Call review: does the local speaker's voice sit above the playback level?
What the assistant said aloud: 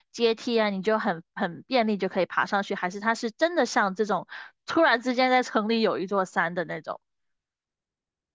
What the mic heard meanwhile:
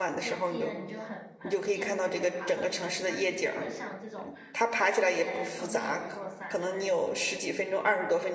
Yes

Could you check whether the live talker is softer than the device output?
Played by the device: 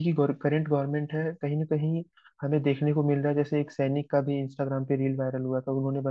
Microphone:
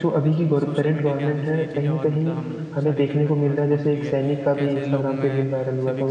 Yes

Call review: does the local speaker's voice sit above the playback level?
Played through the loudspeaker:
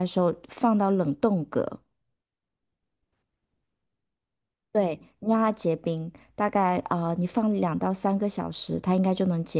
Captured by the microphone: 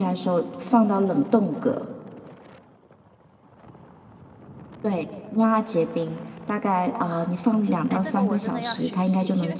No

